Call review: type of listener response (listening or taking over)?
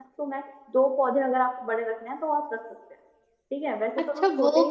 taking over